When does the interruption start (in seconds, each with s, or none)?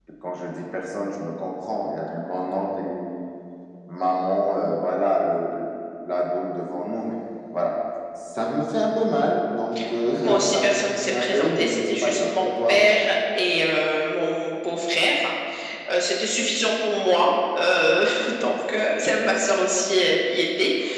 10.2 s